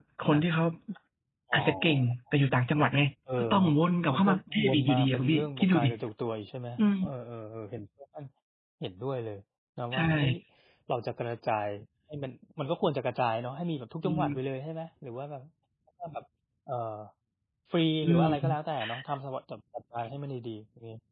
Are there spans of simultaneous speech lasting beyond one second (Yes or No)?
Yes